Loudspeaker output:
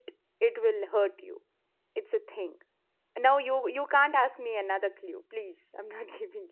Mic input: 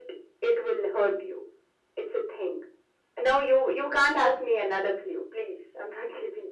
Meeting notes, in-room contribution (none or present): none